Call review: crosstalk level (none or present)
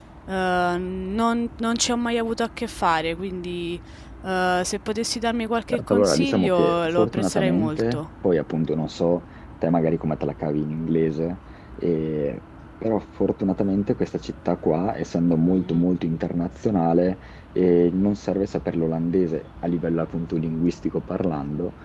present